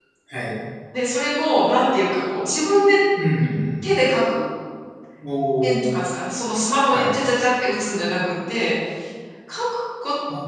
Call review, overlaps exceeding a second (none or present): none